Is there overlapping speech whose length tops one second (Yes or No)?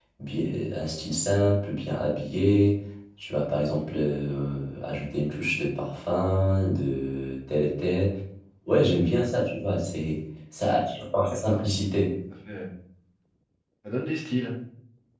No